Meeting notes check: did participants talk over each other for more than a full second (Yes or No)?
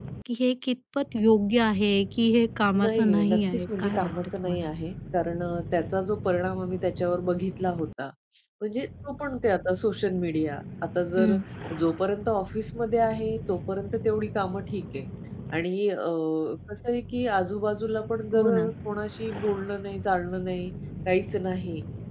Yes